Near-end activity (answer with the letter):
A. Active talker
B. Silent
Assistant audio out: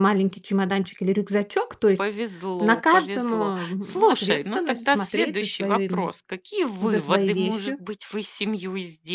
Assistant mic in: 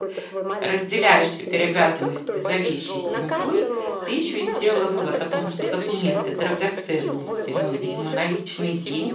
A